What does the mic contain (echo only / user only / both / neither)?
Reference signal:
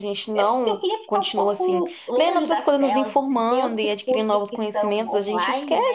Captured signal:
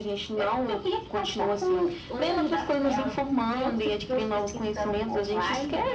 echo only